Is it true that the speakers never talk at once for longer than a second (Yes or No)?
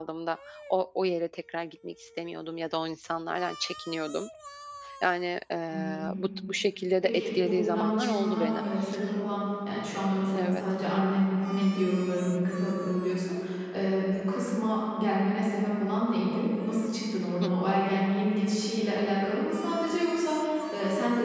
No